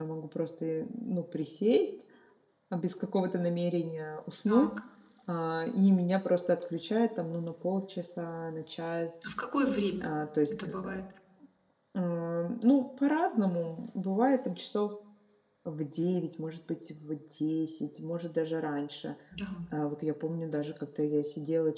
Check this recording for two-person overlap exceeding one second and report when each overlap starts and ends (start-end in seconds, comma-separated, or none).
none